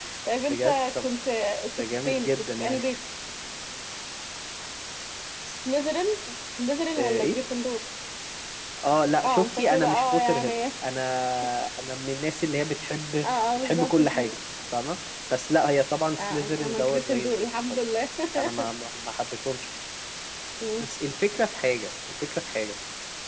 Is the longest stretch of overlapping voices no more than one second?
No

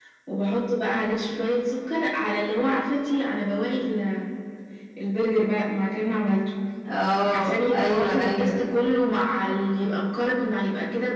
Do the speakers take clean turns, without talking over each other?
No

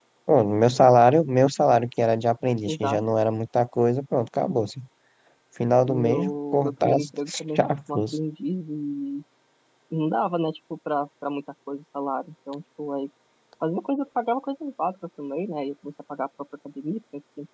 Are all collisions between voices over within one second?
No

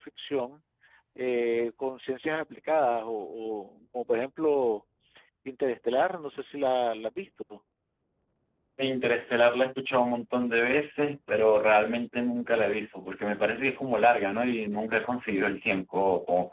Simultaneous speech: No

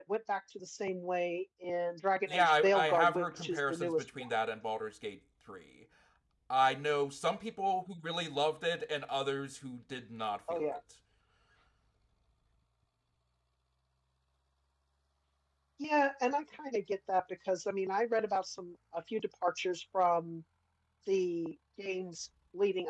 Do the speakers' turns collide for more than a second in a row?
Yes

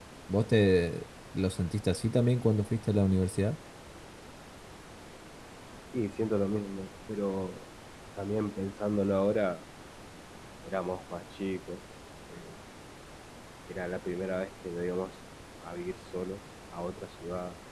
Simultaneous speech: No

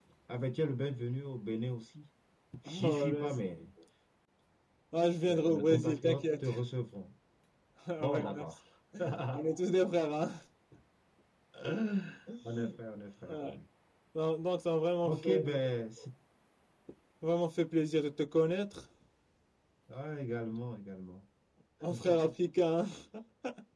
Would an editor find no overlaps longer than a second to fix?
No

